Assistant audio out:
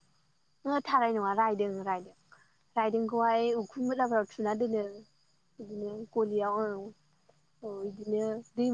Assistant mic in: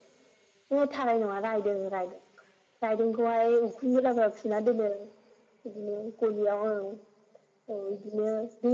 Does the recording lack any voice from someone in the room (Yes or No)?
Yes